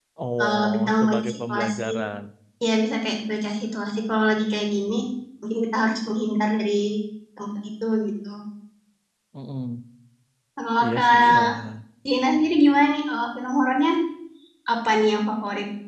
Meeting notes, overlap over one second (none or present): present